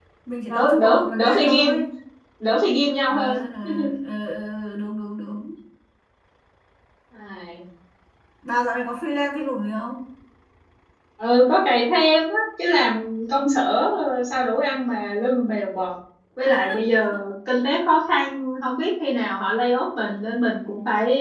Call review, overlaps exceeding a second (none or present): present